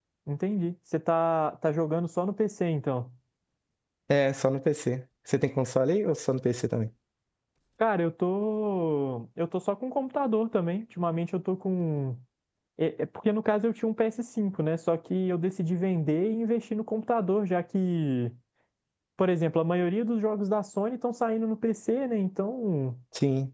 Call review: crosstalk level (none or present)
none